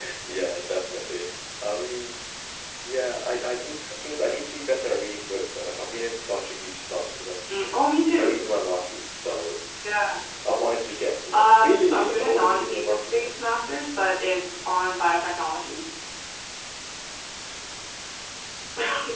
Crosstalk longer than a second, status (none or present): present